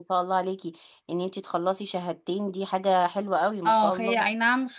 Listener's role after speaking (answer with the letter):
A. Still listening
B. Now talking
B